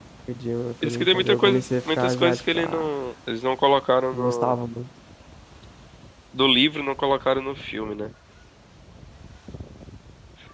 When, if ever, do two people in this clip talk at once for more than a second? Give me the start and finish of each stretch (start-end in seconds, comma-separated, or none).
0.8-2.9